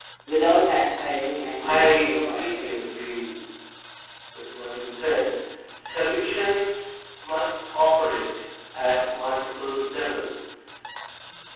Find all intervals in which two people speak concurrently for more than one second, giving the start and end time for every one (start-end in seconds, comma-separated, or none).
1.6-2.9